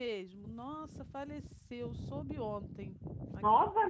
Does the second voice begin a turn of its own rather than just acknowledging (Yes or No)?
No